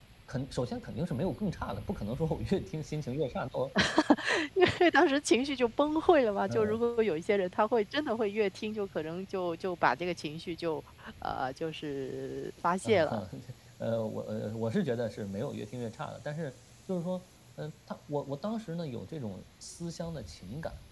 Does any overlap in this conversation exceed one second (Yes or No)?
No